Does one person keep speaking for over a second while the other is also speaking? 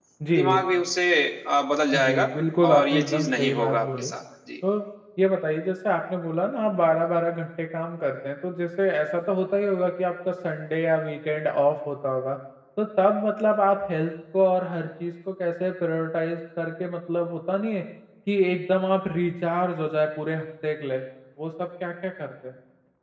Yes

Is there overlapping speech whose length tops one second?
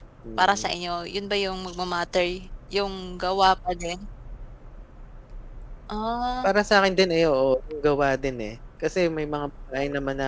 No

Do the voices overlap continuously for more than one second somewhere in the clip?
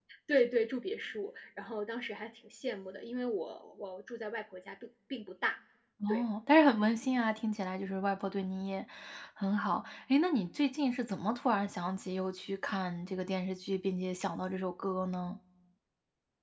No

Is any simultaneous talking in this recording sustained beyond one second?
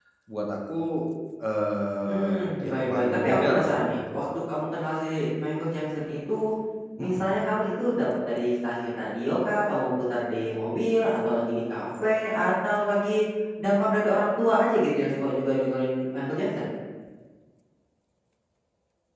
Yes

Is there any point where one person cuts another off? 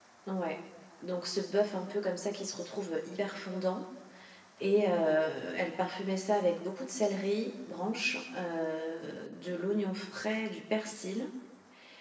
No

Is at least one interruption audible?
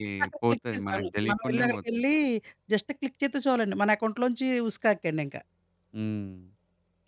Yes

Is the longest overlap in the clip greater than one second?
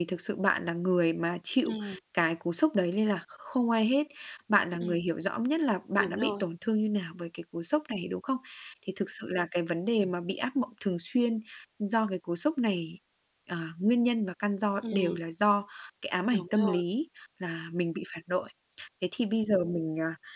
No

